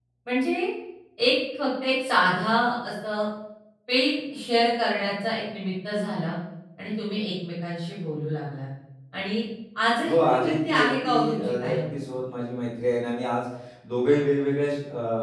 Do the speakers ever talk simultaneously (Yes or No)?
Yes